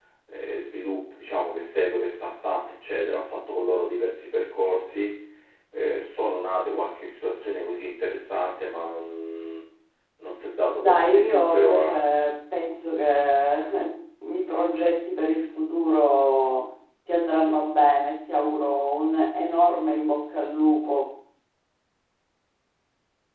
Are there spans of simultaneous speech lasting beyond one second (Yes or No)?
Yes